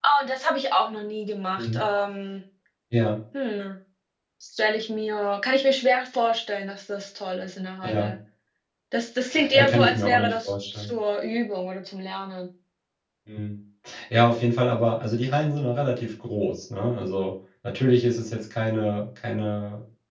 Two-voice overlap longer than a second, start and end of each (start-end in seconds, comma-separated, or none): 9.5-10.9